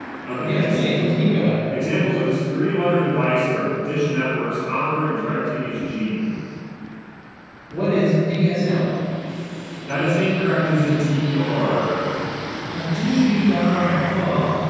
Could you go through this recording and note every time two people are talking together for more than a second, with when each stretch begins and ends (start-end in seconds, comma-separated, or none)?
none